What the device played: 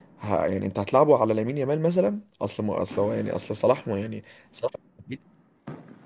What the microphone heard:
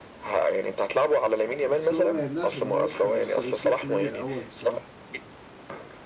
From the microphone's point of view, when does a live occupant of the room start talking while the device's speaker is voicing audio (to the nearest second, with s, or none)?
1 s